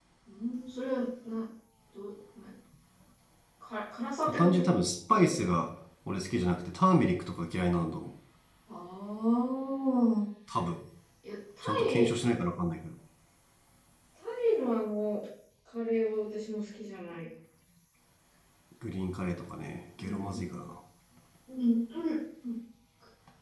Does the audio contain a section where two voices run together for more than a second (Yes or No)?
No